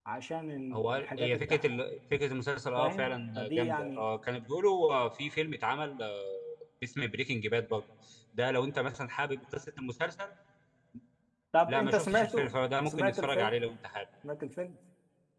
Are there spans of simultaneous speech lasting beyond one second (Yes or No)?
Yes